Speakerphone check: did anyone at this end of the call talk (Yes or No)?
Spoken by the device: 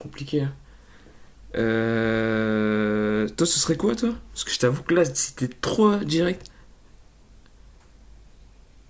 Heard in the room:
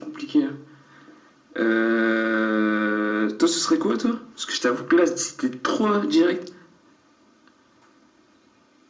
No